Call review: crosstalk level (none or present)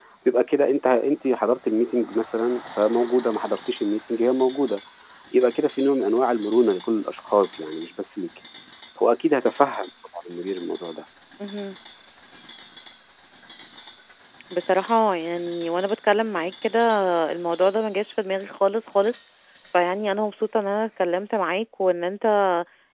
none